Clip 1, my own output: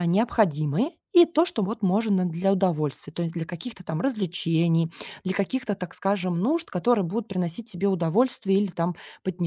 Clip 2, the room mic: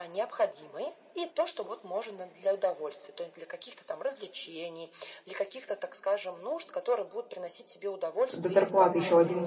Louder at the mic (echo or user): user